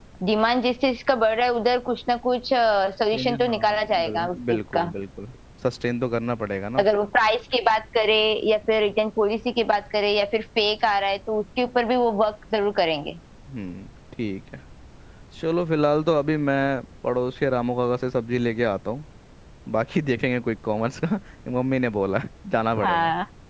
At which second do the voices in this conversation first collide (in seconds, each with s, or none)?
3.1 s